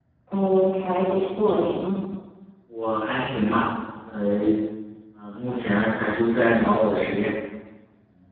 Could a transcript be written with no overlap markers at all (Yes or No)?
Yes